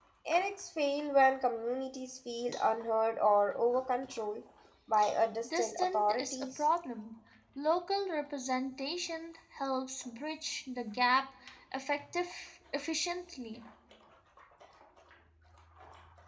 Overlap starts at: 5.4 s

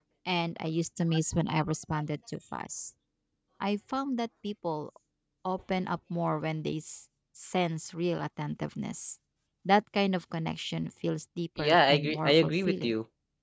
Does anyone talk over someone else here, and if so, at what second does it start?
11.6 s

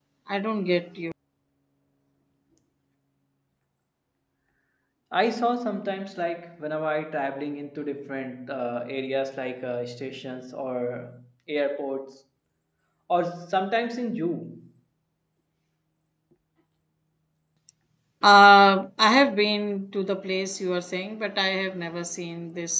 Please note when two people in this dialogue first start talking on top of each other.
none

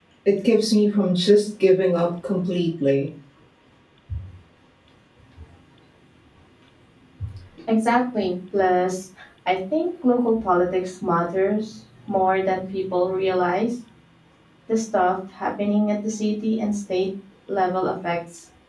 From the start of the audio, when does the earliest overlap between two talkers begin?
none

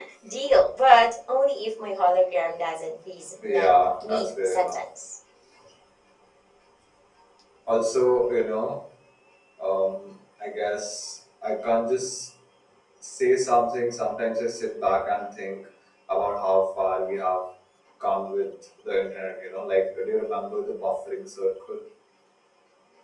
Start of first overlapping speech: 3.4 s

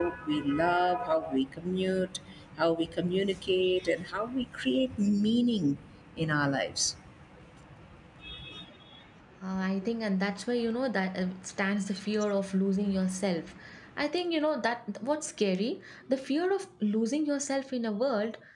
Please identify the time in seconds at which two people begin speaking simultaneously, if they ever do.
none

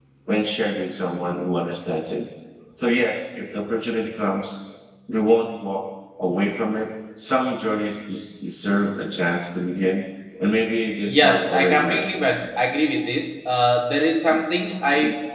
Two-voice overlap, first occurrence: 11.0 s

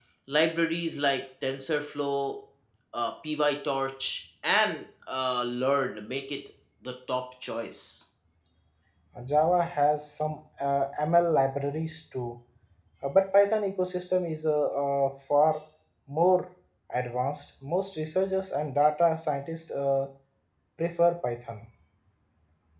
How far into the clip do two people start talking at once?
none

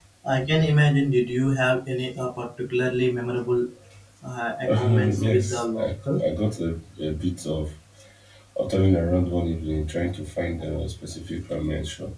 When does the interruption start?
4.8 s

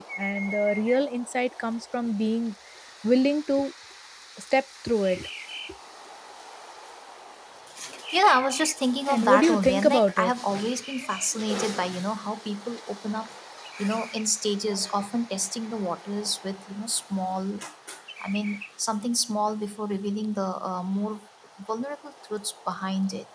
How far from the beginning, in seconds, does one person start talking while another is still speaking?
9.1 s

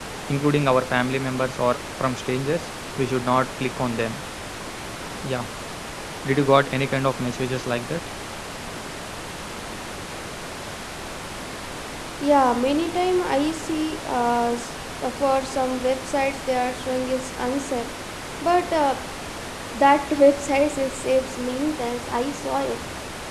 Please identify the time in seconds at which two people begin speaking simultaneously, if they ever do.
none

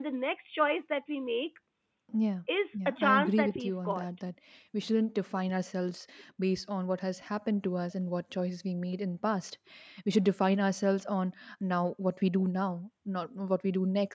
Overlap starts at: 2.7 s

